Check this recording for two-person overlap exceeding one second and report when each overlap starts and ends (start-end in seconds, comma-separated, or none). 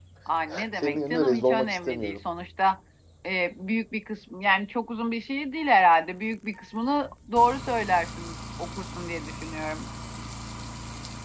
0.8-2.2